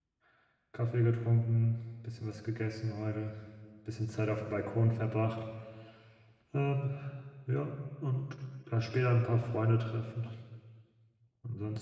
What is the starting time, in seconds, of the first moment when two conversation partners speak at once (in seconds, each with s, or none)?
none